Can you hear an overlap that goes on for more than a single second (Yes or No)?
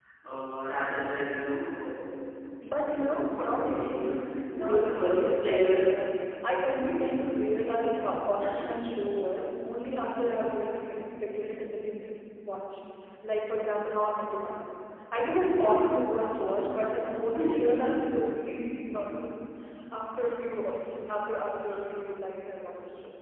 Yes